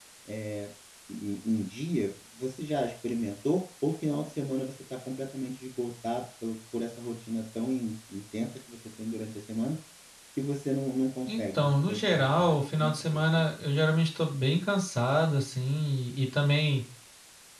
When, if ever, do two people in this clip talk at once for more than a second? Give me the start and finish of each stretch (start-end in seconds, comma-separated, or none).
11.3-13.4